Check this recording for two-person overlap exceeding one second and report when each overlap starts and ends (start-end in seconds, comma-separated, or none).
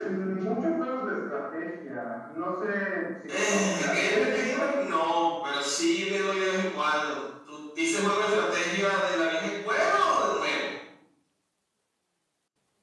3.3-4.7